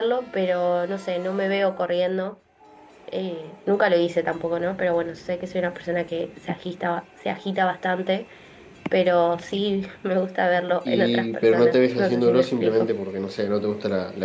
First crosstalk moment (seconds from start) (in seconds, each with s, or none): 10.8 s